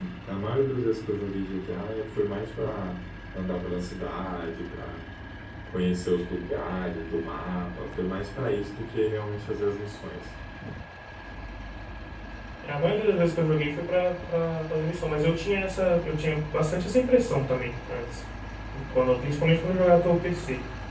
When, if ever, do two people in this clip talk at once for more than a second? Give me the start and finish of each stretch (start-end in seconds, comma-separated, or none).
none